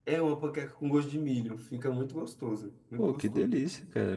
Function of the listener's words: taking over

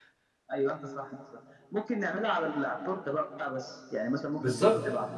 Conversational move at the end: taking over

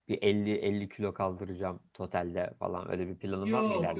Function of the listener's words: taking over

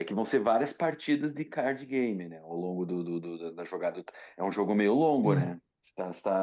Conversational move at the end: listening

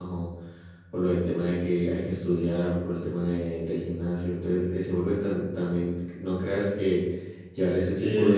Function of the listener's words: listening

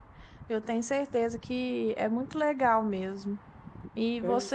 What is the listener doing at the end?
listening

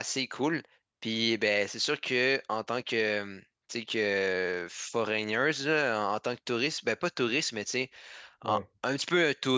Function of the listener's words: listening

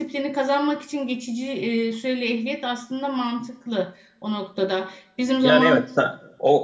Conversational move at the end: taking over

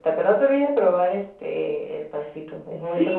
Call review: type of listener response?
taking over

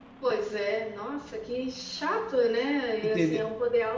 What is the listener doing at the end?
listening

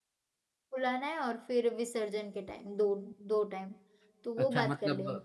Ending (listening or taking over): taking over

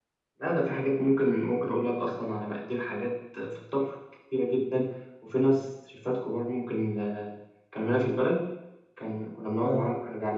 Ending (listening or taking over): listening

